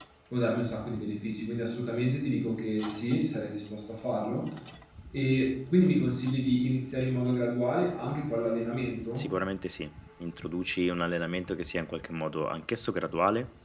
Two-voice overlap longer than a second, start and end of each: none

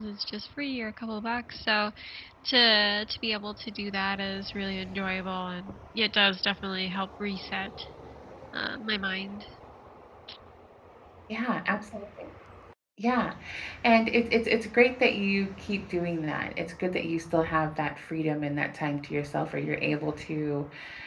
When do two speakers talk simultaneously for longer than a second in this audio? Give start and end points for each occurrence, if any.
none

